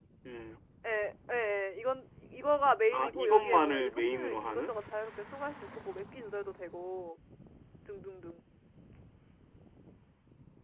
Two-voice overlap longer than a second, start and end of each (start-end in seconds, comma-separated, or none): 2.9-4.7